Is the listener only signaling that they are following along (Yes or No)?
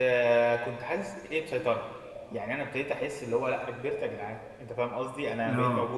Yes